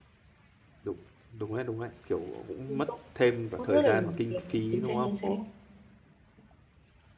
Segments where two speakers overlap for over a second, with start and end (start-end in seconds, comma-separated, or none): 3.6-5.1